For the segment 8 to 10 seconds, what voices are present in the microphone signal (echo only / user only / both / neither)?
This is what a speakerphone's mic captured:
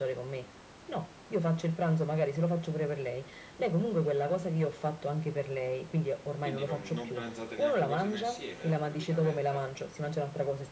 both